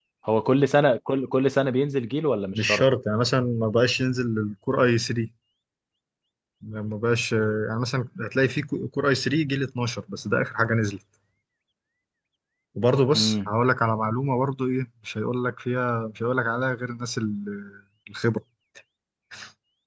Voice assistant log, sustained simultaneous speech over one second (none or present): none